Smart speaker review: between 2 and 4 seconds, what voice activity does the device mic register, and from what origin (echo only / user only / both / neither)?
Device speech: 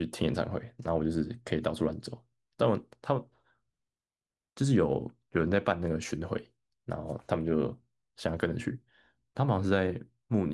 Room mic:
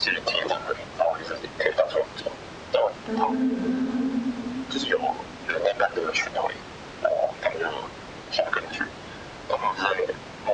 both